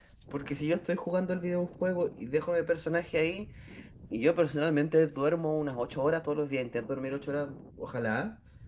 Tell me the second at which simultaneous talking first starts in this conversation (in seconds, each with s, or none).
none